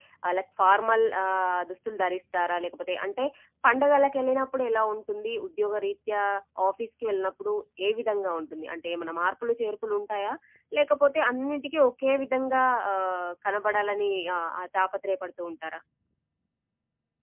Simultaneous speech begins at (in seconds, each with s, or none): none